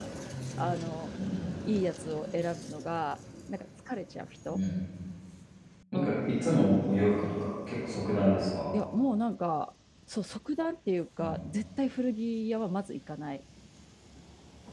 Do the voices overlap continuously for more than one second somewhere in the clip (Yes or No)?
No